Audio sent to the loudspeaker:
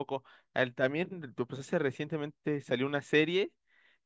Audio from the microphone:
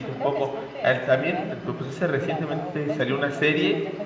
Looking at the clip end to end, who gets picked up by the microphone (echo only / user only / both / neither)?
both